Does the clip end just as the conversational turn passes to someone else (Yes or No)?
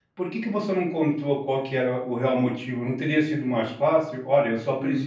Yes